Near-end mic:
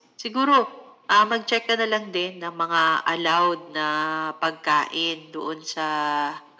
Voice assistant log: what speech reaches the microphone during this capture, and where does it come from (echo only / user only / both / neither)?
echo only